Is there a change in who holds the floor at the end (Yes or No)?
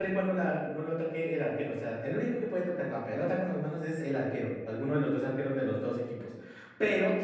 No